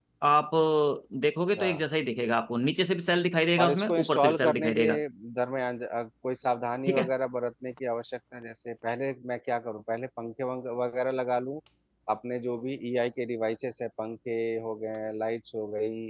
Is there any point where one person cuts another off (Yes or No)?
Yes